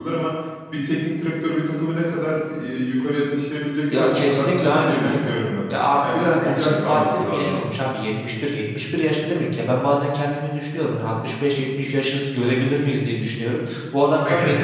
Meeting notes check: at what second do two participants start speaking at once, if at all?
3.9 s

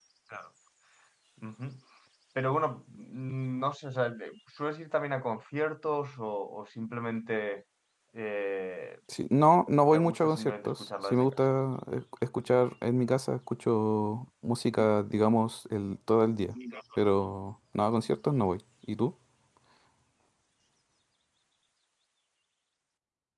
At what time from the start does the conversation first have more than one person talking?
9.9 s

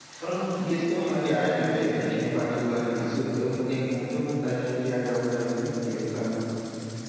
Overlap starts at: 0.6 s

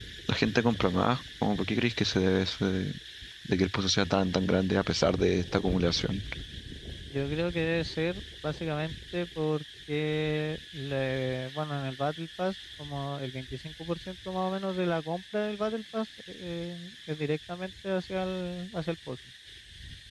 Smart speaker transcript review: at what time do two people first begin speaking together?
none

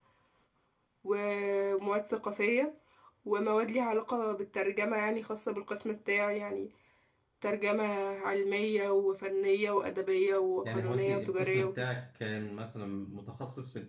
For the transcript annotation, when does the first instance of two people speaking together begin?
10.6 s

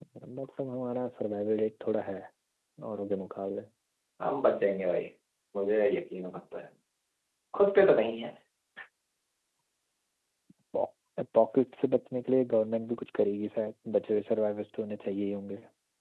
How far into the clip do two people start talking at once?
none

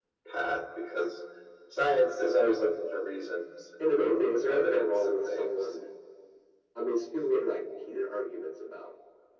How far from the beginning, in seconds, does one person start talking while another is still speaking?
3.8 s

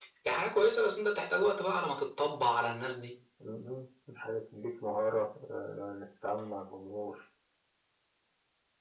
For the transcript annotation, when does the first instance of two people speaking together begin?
none

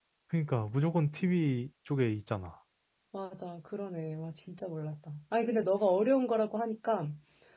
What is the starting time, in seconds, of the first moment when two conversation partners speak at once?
none

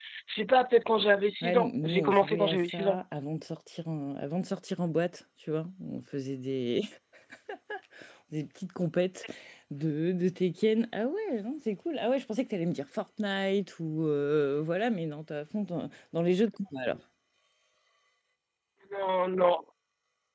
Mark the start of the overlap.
1.4 s

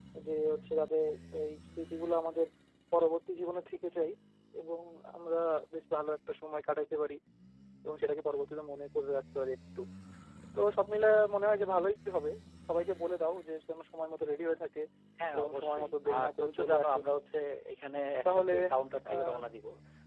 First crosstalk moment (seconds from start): 15.4 s

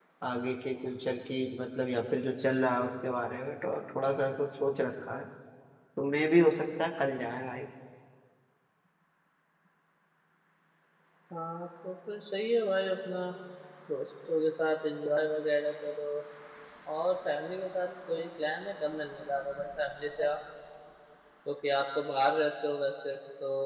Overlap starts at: none

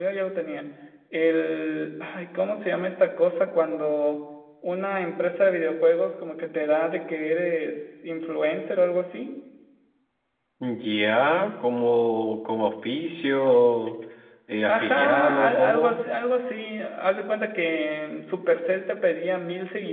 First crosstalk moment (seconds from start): 14.7 s

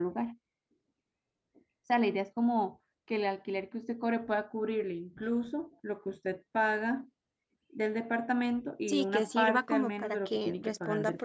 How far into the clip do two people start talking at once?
8.9 s

